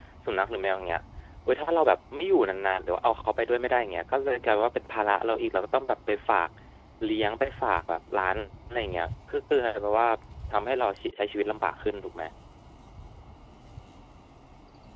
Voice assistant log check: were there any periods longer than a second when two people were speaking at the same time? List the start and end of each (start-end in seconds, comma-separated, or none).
none